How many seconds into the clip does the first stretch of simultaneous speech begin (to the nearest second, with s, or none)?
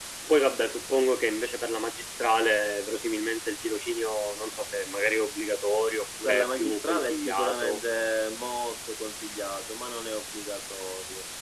6 s